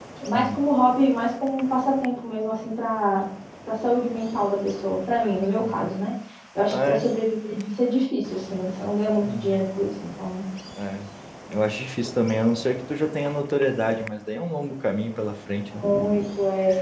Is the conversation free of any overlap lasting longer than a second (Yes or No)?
Yes